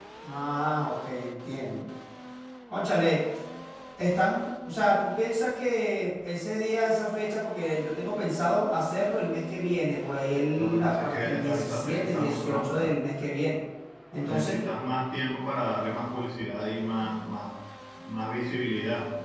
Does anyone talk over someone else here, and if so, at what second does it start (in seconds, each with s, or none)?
10.6 s